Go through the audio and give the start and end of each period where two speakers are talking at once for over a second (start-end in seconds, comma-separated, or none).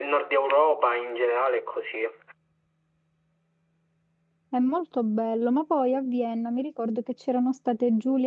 none